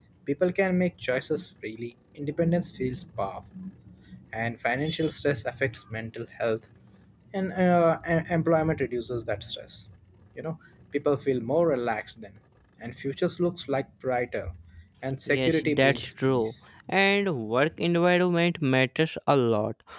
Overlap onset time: 15 s

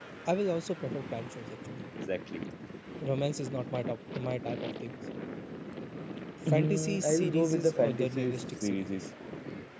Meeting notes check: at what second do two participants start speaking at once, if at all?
6 s

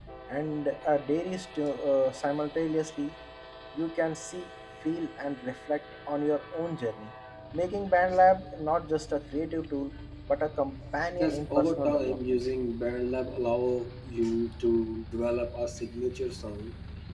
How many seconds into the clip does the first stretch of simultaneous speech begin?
11 s

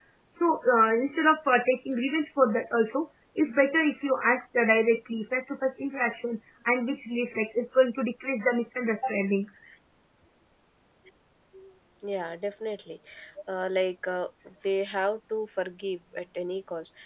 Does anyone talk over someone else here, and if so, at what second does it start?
none

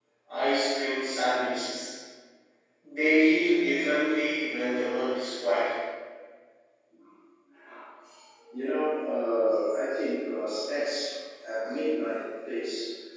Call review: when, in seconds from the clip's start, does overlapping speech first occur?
none

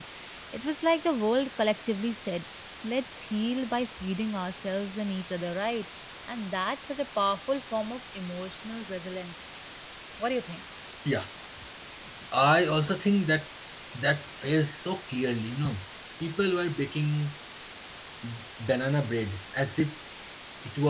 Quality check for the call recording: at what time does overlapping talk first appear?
none

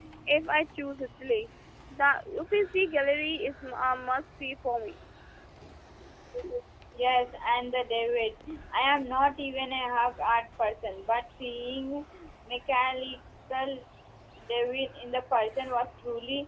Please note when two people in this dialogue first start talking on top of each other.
none

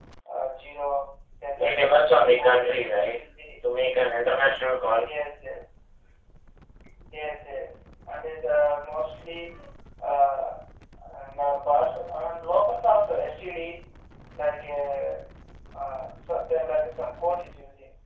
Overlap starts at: 2 s

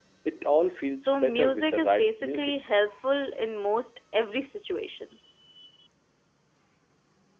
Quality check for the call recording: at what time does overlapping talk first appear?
1 s

